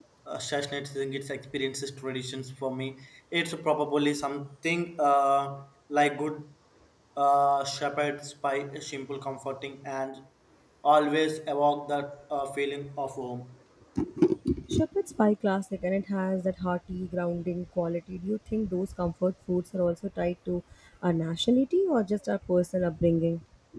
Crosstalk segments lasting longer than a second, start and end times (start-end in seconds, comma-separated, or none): none